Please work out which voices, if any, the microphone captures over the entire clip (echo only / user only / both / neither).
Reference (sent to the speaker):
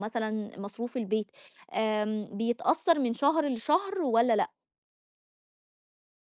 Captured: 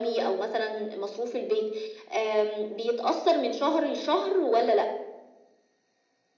echo only